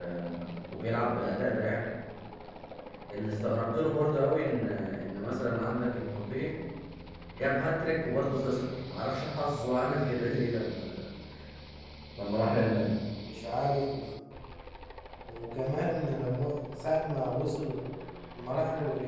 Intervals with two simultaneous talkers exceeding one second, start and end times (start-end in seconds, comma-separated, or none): none